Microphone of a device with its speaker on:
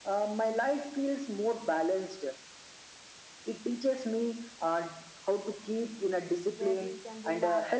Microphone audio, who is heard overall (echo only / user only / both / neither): both